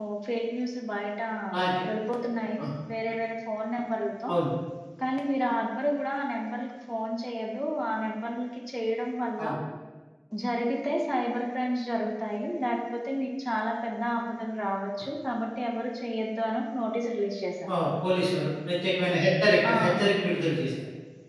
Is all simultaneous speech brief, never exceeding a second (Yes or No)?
Yes